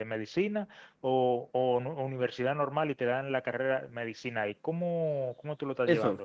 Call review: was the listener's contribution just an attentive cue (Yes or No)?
No